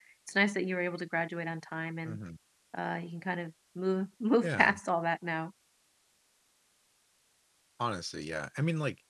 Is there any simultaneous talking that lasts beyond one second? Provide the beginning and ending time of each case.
none

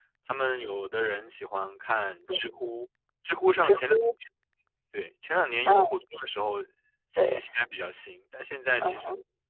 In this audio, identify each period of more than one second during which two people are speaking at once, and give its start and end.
none

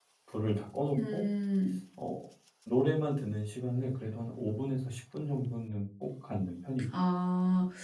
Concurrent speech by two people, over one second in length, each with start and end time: none

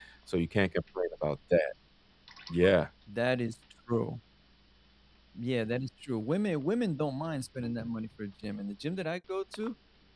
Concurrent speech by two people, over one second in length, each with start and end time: none

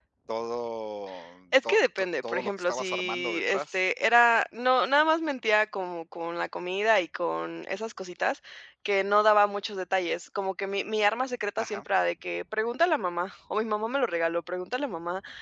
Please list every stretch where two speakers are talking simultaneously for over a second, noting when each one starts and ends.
1.6-3.8

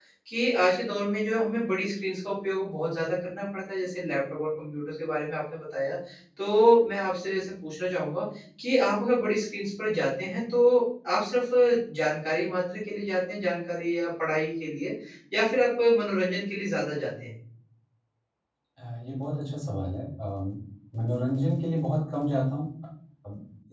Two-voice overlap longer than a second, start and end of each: none

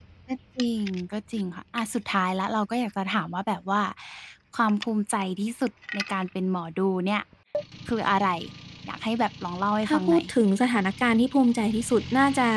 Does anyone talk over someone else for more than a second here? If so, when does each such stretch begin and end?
none

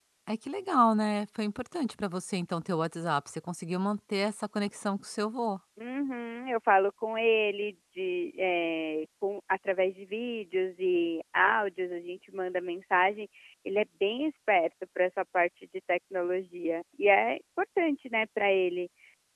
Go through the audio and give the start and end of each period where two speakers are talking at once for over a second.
none

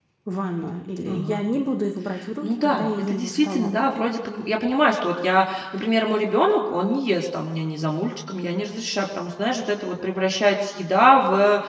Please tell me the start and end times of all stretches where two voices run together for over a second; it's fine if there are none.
2.4-3.8

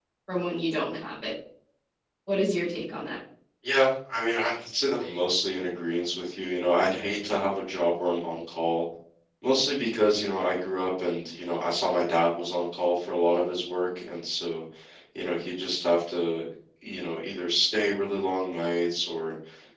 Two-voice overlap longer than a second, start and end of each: none

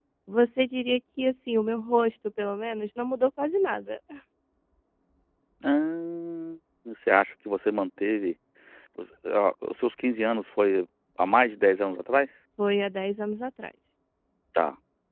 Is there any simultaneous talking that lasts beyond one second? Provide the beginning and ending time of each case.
none

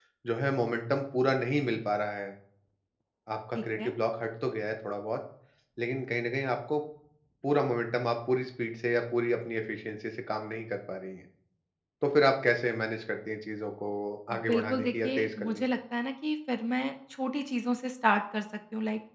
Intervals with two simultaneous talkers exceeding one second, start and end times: 14.4-15.6

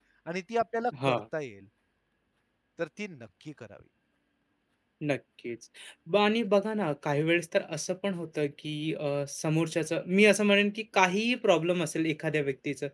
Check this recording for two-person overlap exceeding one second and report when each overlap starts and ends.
none

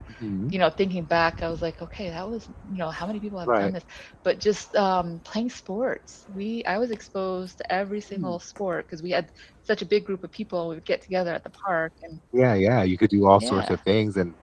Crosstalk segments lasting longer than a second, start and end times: none

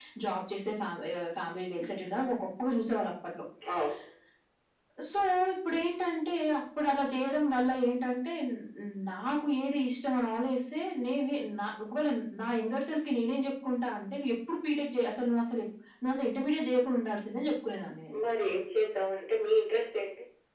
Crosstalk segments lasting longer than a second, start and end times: none

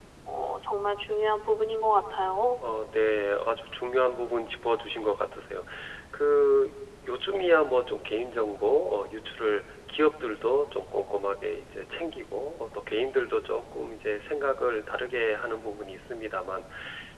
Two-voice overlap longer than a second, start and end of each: none

